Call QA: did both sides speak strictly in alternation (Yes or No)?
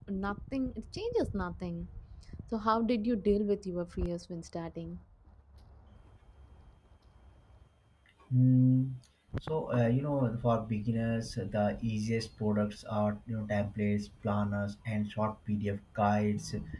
Yes